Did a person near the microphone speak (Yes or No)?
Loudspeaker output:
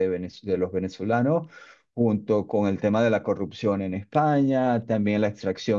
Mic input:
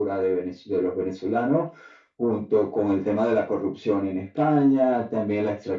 No